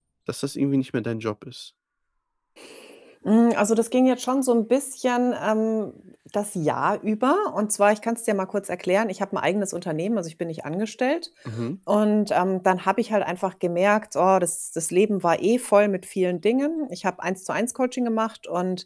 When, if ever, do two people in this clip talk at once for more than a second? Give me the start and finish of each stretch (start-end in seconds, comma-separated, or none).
none